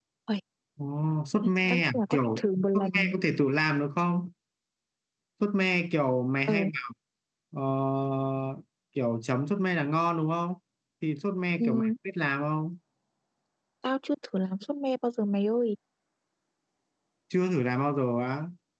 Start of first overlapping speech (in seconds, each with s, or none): 1.7 s